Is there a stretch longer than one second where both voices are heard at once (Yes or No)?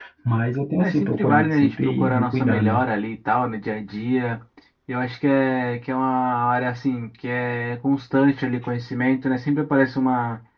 Yes